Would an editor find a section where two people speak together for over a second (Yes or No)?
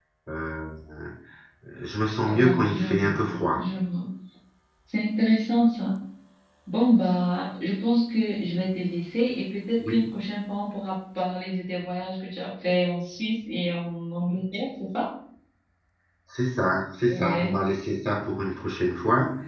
Yes